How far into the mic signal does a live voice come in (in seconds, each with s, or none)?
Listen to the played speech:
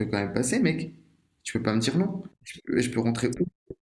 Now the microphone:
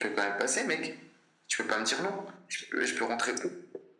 none